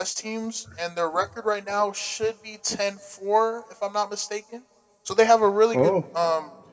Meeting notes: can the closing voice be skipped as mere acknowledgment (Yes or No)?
Yes